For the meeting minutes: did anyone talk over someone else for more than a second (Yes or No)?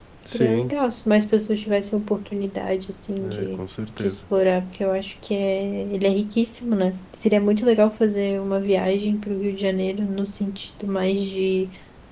No